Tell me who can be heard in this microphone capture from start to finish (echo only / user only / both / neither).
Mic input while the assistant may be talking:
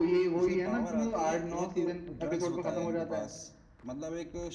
both